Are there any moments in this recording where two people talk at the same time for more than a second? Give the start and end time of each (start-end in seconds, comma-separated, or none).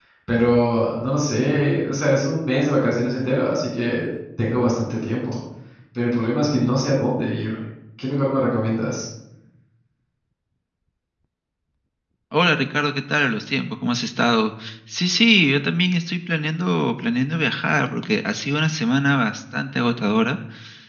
none